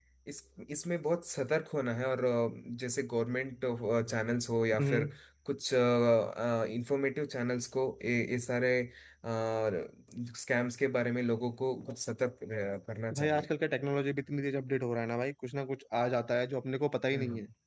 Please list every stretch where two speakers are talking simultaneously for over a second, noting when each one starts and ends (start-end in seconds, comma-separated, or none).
none